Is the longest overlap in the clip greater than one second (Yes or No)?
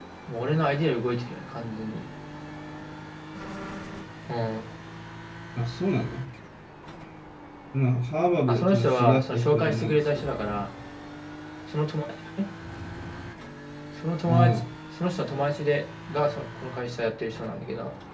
Yes